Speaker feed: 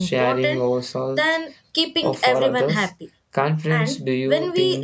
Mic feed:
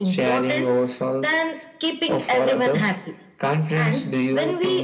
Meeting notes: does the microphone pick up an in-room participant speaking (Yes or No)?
No